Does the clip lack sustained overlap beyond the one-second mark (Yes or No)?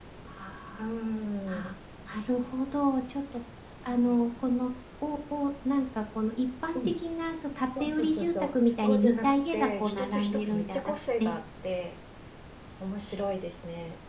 No